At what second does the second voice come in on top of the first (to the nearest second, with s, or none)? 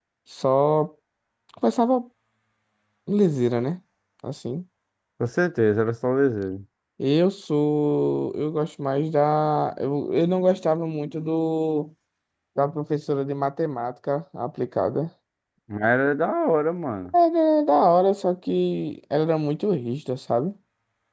none